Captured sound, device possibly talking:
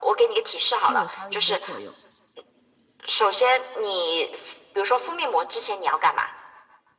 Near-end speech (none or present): present